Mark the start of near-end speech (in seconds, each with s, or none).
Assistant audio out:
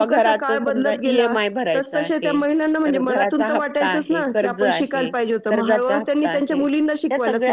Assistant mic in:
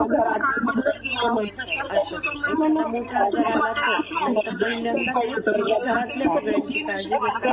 1.9 s